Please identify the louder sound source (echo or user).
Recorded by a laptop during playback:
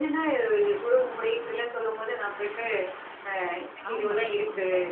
echo